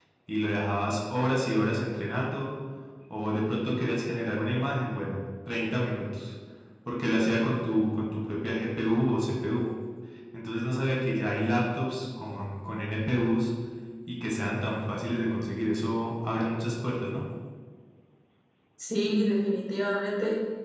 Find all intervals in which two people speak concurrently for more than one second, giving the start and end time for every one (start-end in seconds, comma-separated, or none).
none